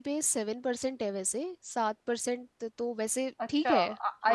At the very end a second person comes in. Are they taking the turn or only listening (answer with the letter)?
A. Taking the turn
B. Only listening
A